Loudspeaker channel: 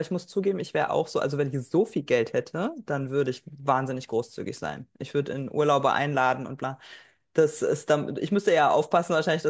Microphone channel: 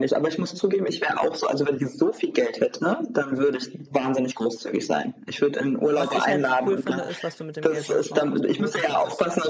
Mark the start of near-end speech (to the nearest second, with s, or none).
6 s